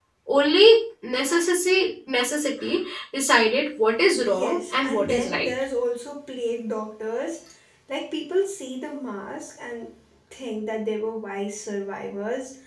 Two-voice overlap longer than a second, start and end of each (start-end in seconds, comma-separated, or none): 4.3-5.5